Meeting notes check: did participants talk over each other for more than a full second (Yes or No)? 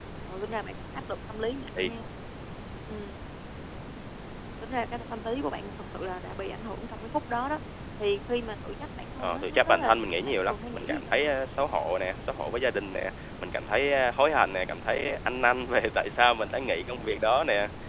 Yes